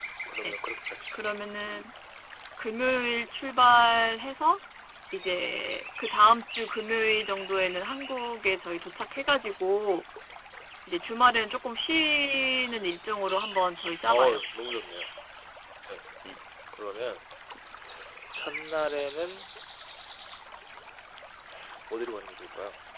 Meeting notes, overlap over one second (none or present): none